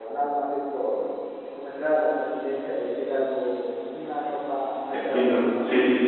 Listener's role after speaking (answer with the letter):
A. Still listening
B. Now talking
B